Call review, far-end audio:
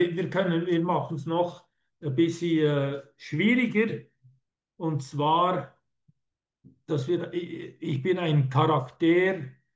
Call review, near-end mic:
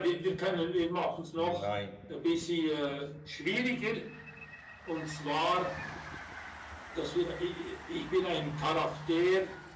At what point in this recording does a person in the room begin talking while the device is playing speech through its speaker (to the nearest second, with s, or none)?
1 s